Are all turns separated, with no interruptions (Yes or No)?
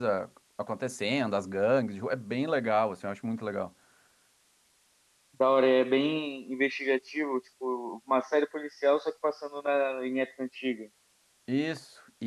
Yes